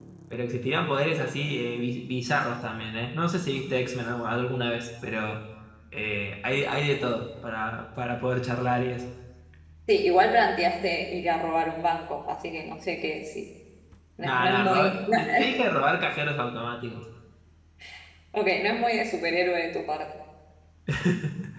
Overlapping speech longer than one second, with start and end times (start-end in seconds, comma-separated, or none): 14.2-15.6